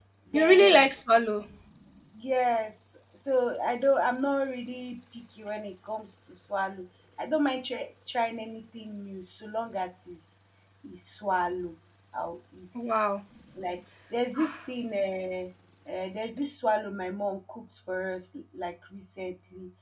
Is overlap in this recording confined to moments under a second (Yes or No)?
Yes